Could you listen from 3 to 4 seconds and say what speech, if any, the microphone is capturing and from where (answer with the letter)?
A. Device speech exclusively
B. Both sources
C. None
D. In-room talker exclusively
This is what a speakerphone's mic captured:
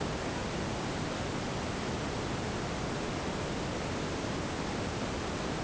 C